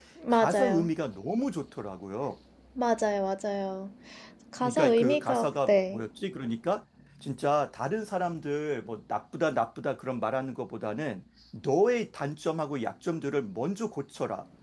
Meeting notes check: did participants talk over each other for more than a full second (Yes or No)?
Yes